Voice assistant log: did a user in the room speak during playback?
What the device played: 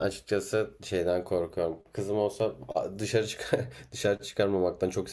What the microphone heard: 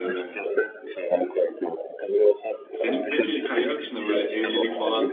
Yes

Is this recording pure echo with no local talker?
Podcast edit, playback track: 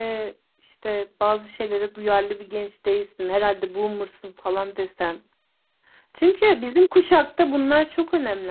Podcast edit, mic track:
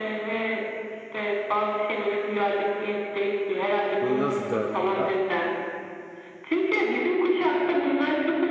No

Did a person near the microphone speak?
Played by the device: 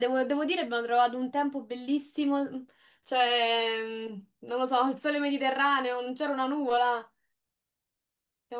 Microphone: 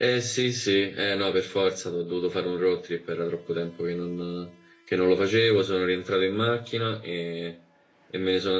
Yes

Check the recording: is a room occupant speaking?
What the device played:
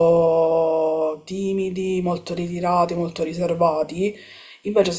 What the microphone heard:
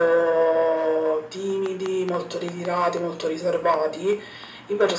No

